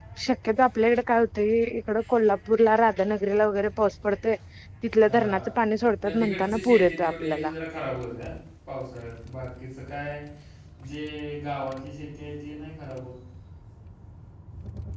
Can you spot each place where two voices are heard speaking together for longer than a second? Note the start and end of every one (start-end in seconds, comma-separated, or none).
6.0-7.5